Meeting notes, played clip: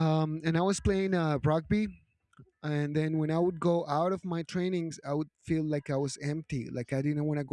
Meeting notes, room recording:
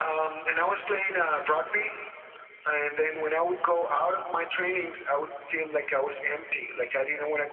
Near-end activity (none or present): none